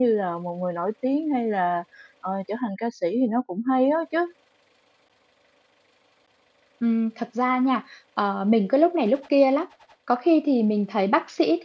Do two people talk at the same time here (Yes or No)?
No